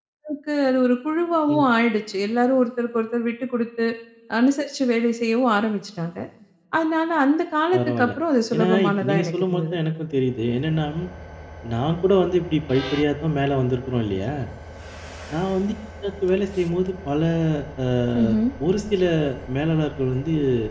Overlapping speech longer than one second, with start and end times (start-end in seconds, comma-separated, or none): 8.6-9.8